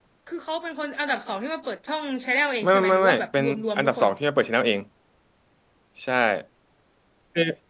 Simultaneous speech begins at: 2.6 s

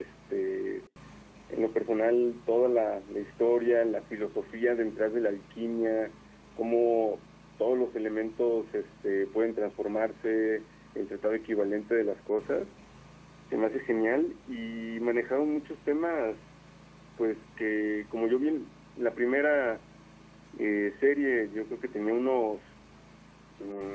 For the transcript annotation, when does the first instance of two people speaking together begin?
none

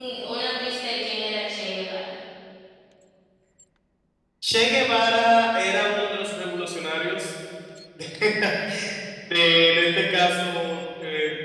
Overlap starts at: none

